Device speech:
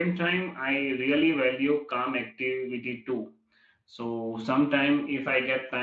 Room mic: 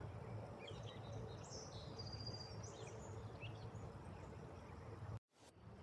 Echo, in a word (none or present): none